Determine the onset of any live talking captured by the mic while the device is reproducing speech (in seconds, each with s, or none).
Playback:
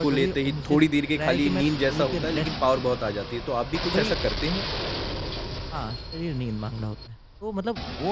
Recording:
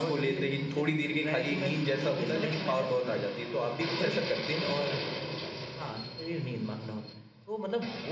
2.1 s